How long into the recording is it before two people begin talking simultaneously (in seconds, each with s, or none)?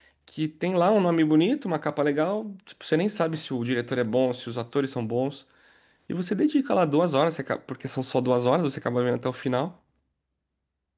none